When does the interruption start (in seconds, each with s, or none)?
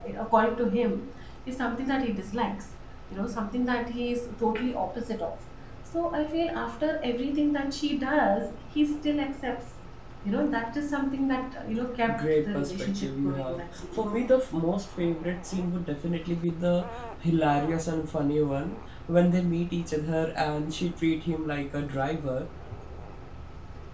12.1 s